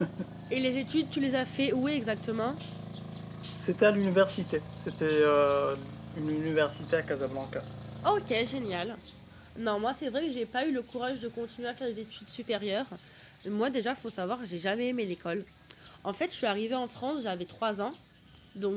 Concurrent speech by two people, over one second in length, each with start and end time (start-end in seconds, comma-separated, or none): none